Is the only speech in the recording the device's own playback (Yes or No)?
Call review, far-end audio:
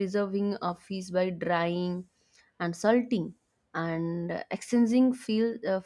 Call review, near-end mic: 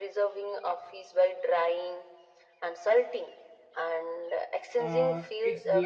No